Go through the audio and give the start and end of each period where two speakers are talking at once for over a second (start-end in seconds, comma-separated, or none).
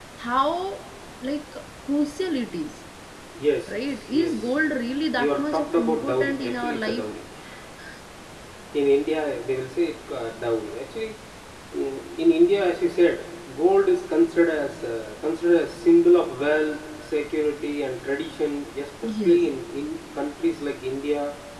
5.2-7.1